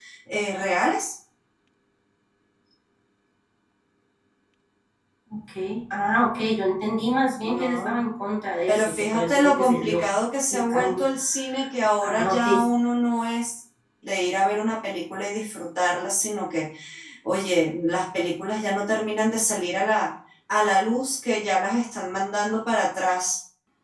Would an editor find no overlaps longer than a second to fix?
No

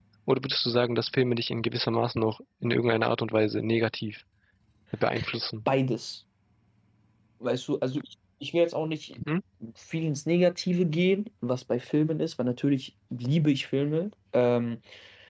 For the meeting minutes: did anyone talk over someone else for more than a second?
No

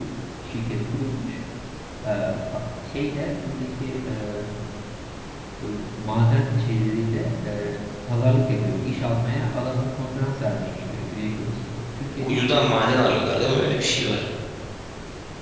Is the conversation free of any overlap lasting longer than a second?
No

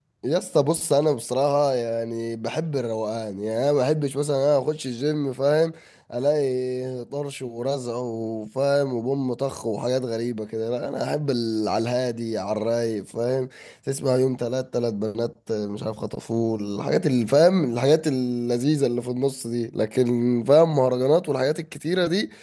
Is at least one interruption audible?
No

